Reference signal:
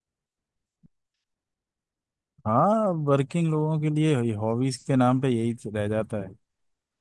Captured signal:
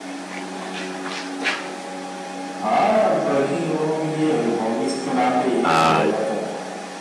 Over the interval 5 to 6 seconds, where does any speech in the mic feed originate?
both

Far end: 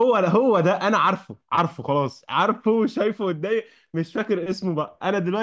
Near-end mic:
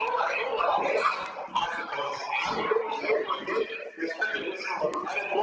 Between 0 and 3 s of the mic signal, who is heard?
echo only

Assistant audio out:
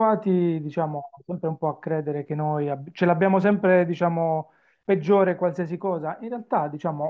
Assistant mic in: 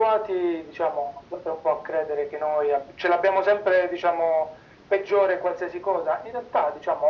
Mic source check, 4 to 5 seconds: echo only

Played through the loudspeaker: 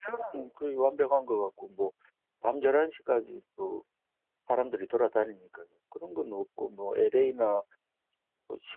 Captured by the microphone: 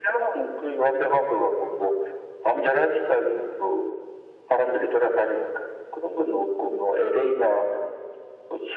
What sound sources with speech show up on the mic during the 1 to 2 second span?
echo only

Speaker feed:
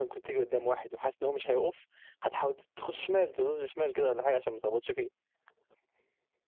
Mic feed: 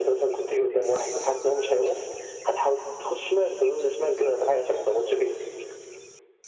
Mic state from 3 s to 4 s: echo only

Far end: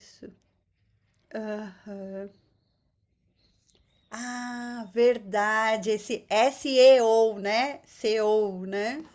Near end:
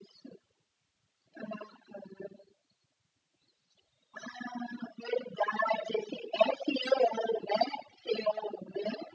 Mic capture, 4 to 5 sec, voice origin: echo only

